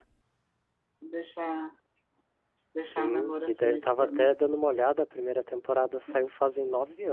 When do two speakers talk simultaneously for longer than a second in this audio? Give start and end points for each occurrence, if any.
2.8-4.3

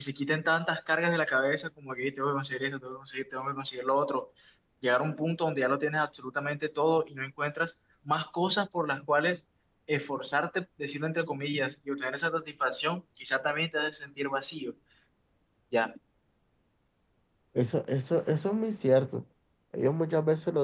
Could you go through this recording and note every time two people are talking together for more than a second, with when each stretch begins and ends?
none

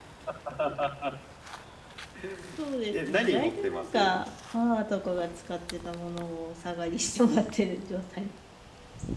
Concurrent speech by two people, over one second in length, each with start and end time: 2.9-4.1

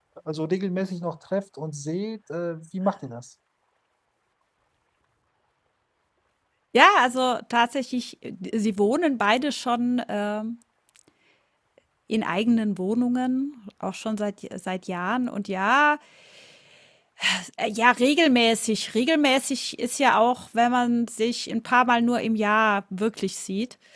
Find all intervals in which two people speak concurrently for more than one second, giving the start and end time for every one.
none

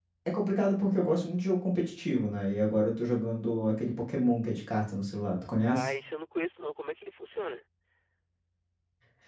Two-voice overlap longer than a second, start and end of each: none

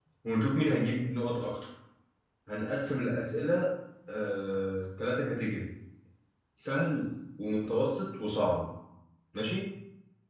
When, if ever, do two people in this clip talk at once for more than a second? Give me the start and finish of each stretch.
none

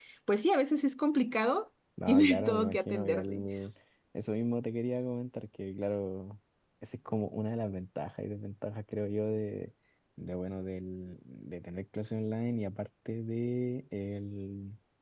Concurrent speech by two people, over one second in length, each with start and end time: 2.1-3.4

